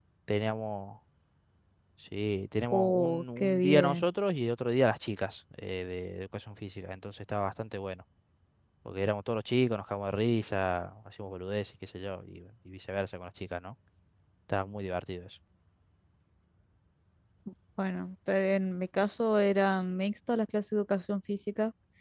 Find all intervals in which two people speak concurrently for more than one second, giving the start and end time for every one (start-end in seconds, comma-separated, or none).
2.7-4.1